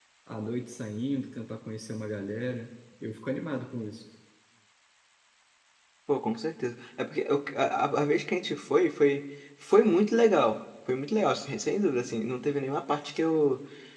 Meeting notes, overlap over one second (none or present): none